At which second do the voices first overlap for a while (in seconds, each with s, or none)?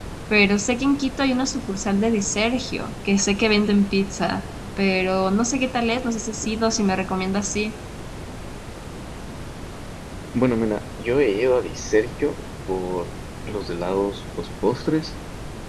none